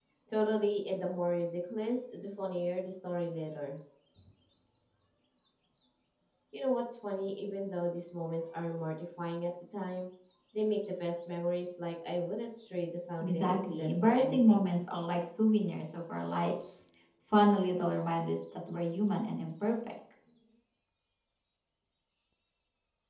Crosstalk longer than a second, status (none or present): present